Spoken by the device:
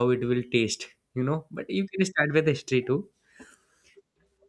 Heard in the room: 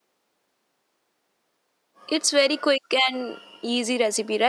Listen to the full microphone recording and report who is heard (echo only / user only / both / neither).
user only